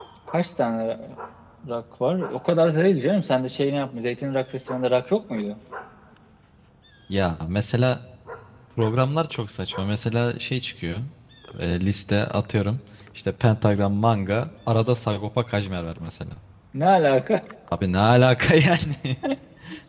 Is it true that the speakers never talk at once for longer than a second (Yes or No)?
Yes